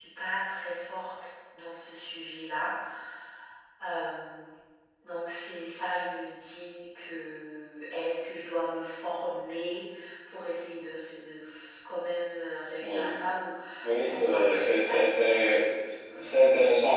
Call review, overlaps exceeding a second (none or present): present